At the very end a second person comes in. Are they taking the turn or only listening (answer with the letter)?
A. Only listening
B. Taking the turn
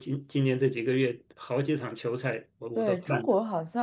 B